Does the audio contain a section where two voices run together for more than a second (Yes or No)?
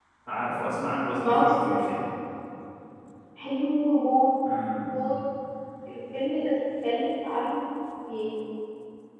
No